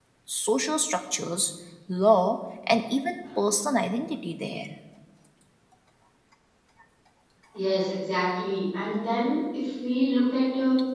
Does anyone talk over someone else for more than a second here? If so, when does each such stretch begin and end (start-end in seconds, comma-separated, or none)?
none